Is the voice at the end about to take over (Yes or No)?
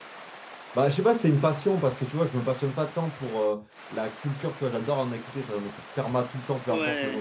No